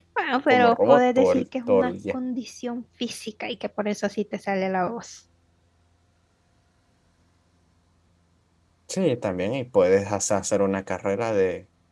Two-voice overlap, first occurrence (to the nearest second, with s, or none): 1 s